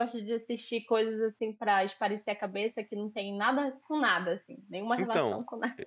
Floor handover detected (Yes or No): Yes